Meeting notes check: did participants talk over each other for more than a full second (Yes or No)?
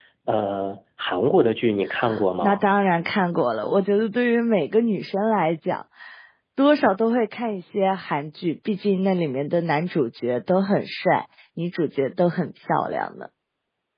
No